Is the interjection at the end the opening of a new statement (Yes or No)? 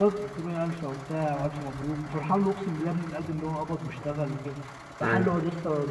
No